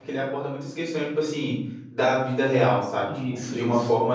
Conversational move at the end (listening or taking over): listening